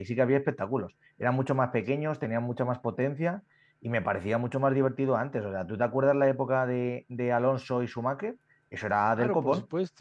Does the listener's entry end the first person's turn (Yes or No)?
Yes